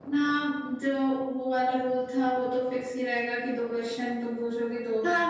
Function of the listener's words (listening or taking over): taking over